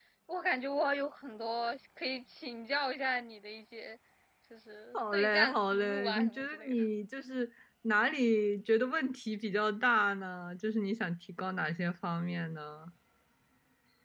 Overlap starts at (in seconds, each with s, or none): 4.9 s